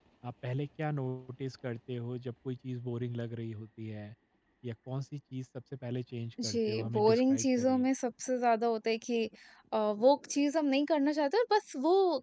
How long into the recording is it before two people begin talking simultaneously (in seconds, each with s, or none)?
6.4 s